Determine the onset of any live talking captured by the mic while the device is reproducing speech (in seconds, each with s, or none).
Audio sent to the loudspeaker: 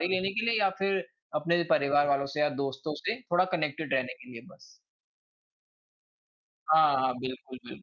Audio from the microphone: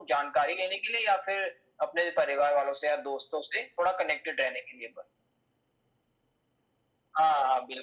none